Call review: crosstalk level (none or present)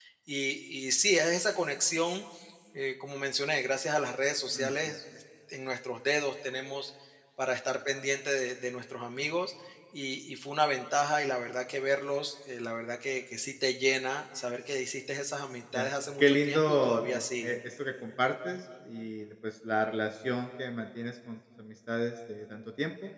present